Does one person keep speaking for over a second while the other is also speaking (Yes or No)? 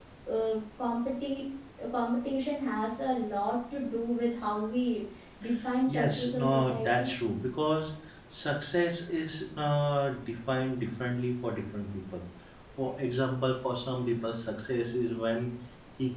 Yes